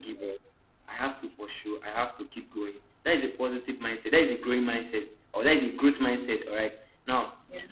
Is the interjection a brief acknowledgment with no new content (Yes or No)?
Yes